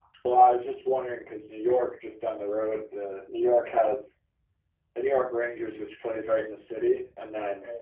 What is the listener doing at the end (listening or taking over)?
listening